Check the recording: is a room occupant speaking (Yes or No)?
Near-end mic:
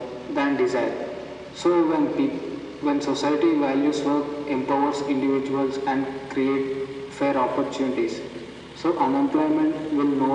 No